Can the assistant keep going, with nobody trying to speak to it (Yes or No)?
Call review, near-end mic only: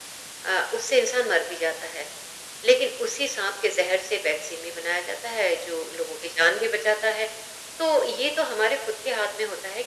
Yes